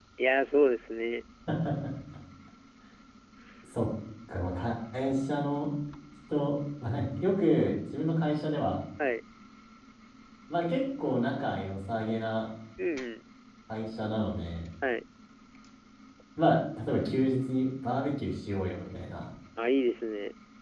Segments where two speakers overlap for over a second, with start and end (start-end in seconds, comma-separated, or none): none